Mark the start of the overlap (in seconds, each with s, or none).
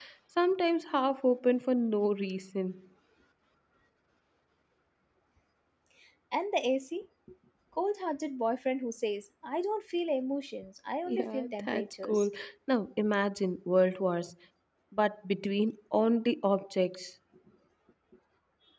11.1 s